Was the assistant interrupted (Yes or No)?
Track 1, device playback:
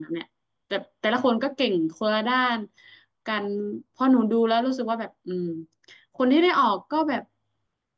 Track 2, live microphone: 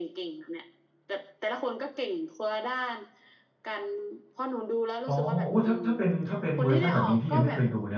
Yes